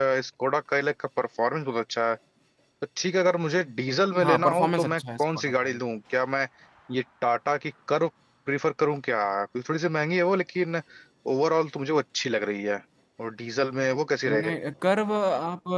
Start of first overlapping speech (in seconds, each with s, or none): 4.2 s